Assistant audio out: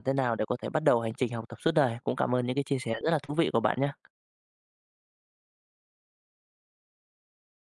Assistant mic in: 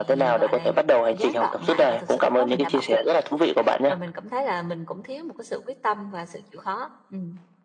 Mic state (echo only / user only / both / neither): both